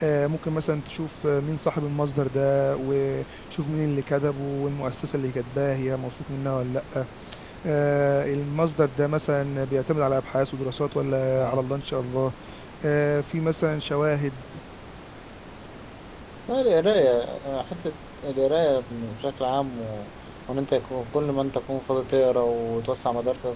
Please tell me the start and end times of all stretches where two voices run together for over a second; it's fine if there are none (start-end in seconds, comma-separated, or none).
none